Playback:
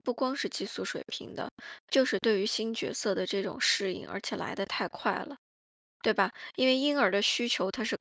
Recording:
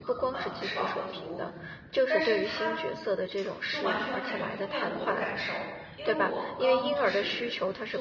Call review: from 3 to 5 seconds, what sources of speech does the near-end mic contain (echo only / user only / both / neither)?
both